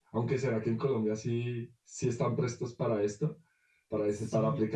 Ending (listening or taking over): taking over